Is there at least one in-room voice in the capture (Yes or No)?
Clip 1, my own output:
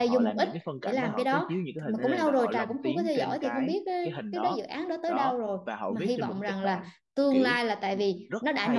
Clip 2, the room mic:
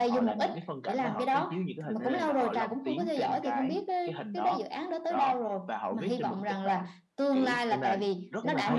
Yes